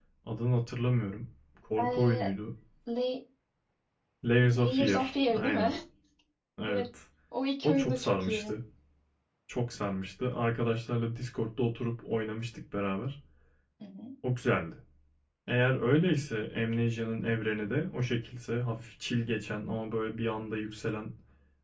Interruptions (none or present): present